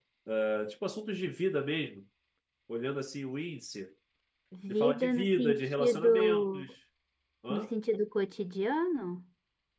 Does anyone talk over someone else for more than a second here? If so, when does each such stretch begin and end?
4.7-6.7

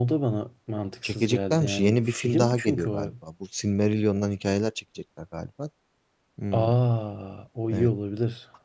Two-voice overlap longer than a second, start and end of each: 1.0-3.1

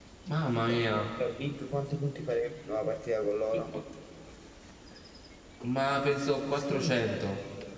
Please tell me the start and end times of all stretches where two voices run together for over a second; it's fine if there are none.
none

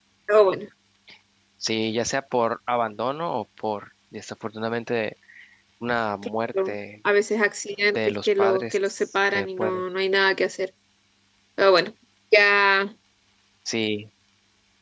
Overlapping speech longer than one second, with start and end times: 7.8-9.8

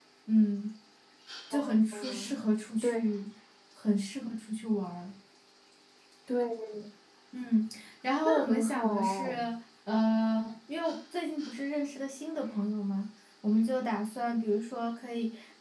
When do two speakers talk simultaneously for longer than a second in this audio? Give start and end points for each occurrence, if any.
8.2-9.5

